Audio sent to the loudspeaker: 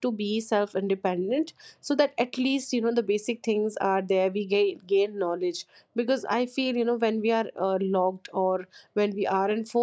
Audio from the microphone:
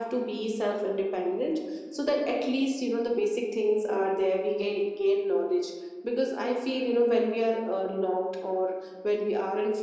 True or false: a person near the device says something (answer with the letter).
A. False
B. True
A